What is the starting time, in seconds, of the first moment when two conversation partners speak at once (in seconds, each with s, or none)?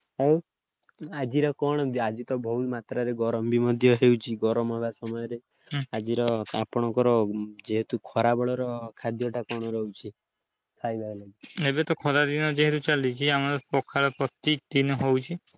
none